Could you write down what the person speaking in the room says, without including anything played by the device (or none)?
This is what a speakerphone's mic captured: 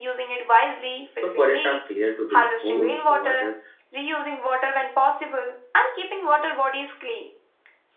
so forests are cleared to build homes water